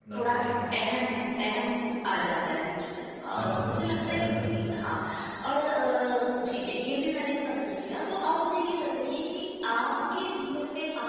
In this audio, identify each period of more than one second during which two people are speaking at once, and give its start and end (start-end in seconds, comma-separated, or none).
3.3-4.7